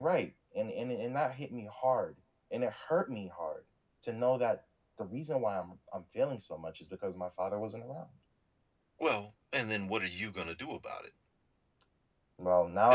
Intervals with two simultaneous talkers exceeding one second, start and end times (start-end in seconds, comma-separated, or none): none